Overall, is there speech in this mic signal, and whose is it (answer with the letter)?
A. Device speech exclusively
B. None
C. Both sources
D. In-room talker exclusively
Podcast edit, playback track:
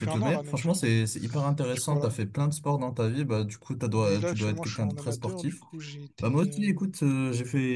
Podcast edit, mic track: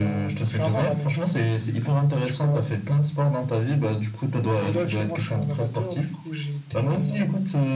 A